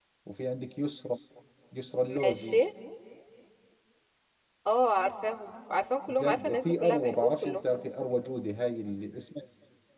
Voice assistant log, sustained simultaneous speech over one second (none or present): present